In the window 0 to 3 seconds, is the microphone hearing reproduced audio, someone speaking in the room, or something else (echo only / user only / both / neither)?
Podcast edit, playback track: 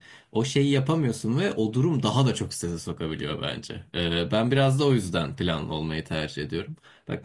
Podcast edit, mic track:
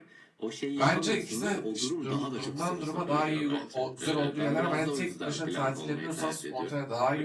both